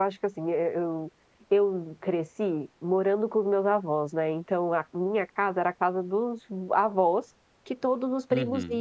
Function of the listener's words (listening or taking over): listening